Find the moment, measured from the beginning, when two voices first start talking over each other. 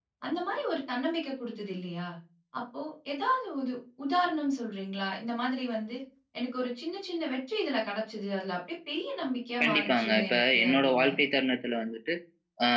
9.6 s

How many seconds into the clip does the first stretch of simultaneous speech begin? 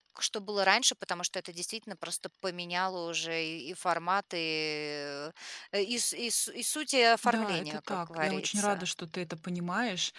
7.2 s

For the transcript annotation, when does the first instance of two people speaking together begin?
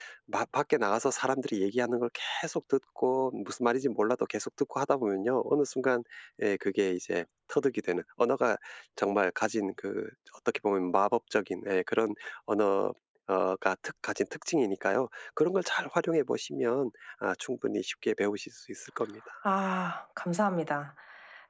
none

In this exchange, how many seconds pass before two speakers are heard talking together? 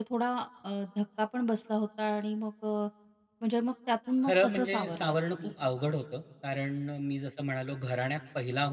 4.2 s

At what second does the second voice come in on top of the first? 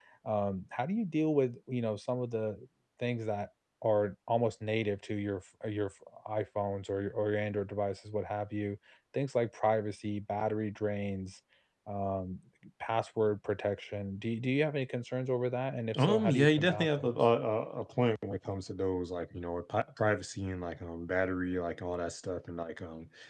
15.9 s

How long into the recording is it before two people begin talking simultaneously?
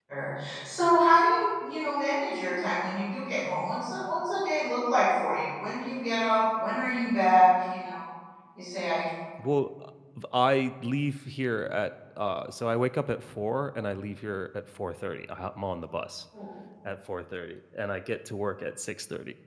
none

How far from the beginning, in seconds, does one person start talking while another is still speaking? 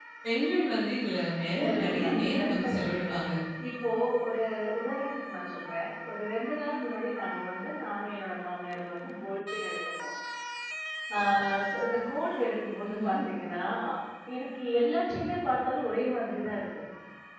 1.6 s

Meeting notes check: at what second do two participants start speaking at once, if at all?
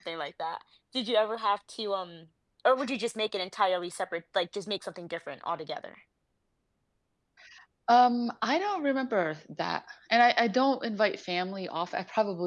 none

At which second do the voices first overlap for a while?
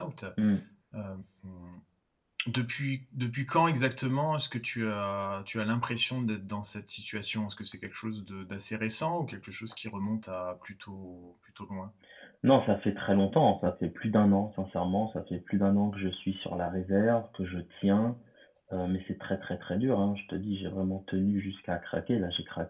none

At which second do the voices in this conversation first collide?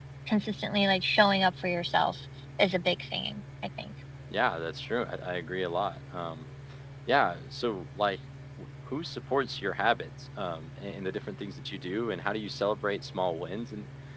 none

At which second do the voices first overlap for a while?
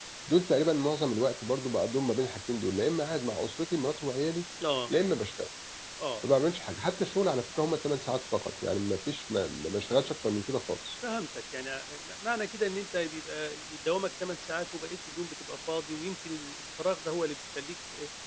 none

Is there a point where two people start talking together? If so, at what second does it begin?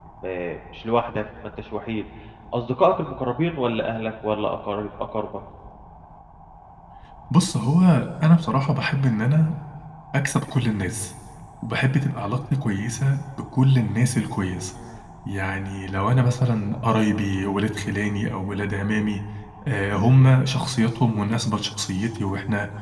none

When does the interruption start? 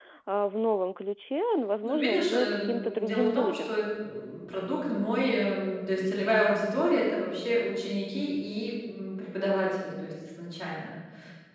1.8 s

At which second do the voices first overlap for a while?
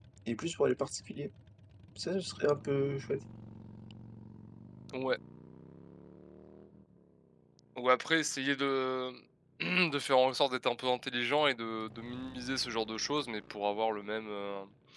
none

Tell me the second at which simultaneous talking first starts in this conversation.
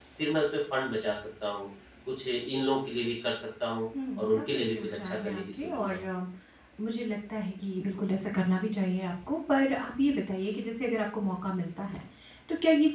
3.9 s

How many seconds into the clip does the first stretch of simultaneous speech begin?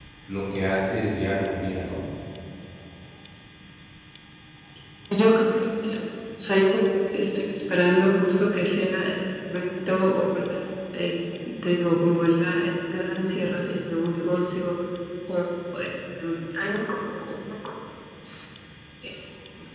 none

